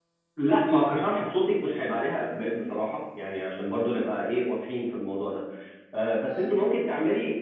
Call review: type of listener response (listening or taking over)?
listening